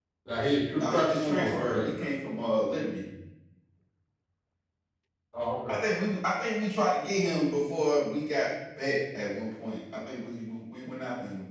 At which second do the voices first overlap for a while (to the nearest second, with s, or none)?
1 s